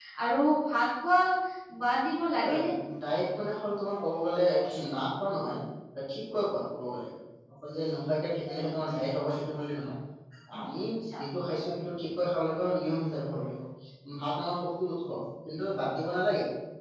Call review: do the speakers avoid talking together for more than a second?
Yes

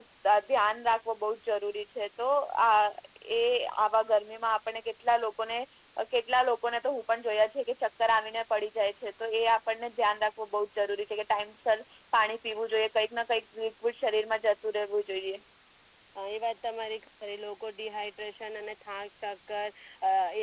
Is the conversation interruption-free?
Yes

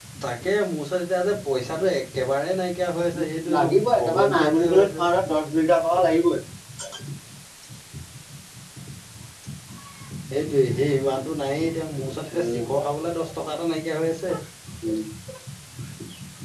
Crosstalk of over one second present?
Yes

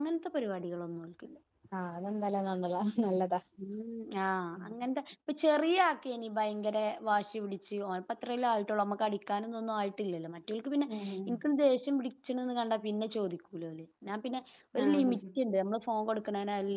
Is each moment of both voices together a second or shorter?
Yes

